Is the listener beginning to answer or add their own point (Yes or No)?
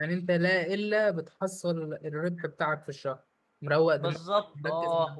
Yes